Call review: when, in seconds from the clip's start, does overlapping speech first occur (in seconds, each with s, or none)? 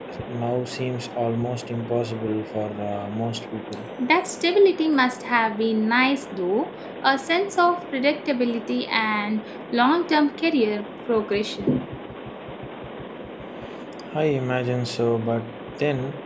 none